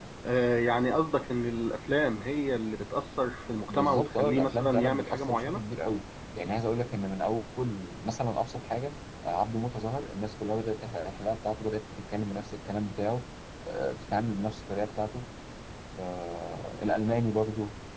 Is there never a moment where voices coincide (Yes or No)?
No